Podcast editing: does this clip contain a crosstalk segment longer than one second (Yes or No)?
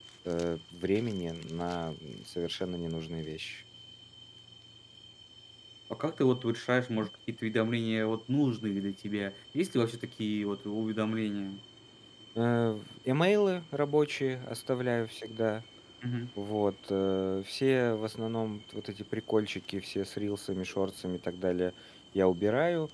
No